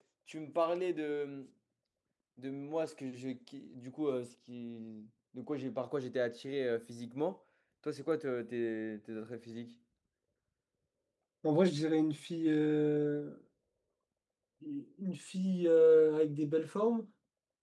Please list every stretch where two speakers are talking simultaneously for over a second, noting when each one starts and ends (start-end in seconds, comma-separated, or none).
none